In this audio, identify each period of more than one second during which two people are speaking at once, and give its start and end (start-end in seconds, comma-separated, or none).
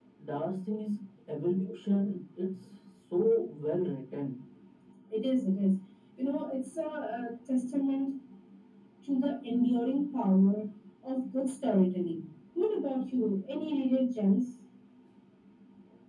none